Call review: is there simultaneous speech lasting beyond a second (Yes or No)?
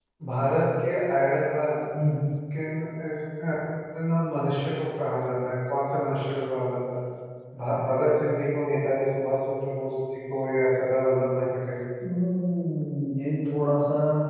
No